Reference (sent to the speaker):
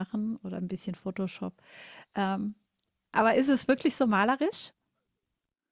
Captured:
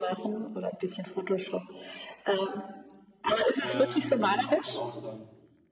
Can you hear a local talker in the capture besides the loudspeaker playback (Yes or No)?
Yes